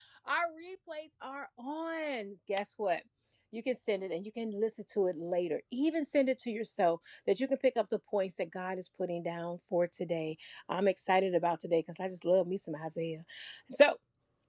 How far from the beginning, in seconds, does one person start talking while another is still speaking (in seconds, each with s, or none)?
none